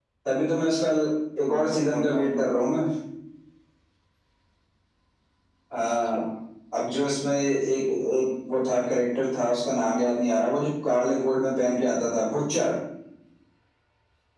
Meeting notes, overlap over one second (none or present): present